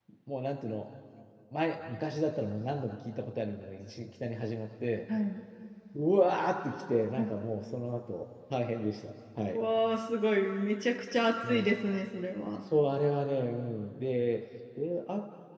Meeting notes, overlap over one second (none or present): none